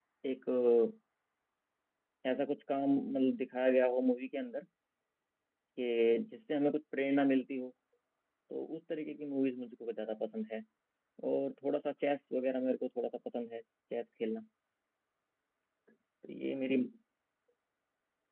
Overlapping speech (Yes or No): No